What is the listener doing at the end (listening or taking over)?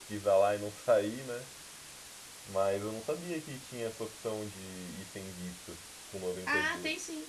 taking over